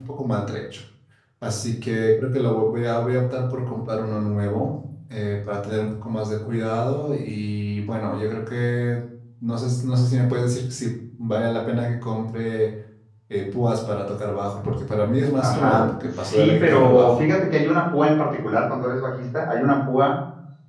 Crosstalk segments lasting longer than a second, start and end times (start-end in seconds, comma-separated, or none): 15.4-17.2